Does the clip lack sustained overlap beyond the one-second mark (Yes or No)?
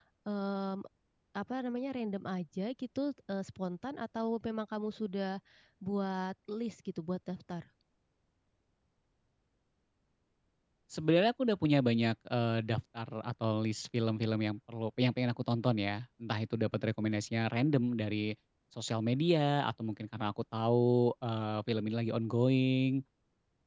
Yes